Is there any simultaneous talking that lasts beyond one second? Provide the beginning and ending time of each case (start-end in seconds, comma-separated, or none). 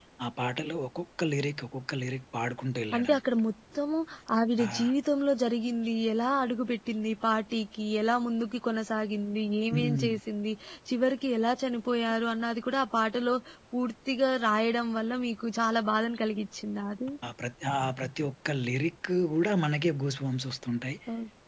none